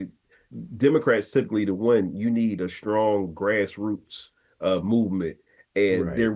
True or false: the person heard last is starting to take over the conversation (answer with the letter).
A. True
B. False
B